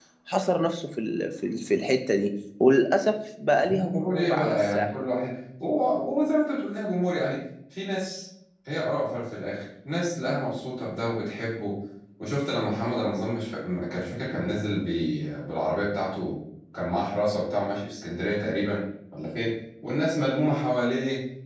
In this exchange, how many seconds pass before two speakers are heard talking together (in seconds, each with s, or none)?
3.6 s